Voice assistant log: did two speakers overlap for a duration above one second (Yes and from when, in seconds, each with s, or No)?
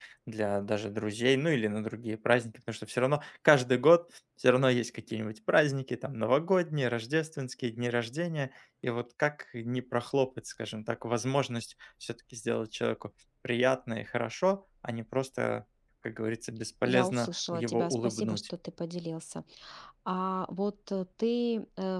Yes, from 16.8 s